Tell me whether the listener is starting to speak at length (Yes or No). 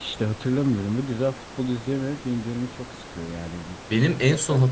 Yes